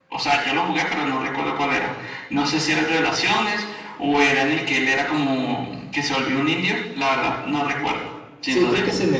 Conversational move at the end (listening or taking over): taking over